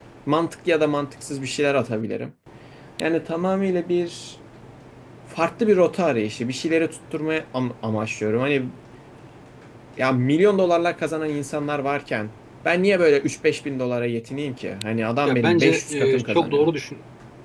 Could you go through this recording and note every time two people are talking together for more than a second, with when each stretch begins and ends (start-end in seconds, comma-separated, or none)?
15.2-16.7